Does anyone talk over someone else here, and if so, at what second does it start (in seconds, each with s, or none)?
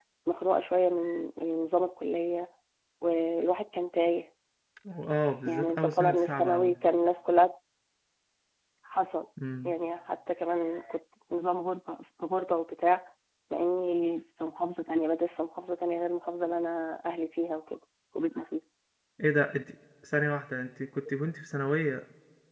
5.5 s